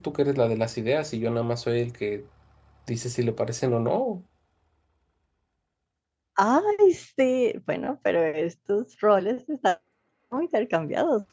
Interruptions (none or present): none